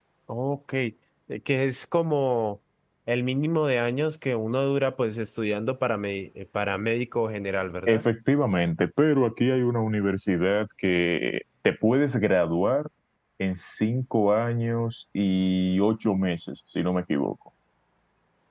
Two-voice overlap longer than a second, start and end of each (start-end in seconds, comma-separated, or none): none